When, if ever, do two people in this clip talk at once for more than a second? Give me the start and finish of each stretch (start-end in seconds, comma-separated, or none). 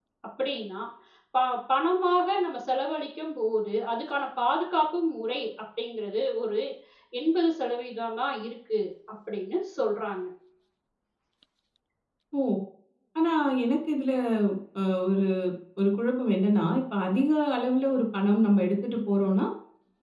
none